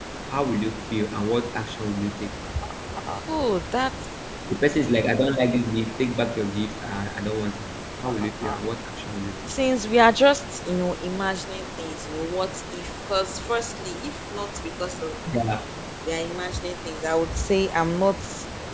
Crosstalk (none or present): none